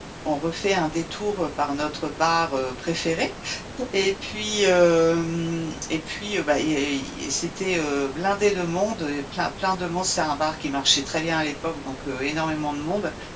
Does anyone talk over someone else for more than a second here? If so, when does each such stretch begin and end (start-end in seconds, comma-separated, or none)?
none